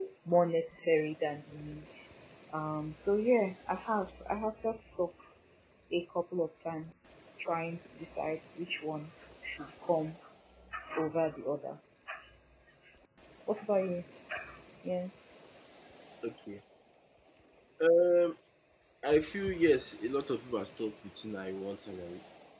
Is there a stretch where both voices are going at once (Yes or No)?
No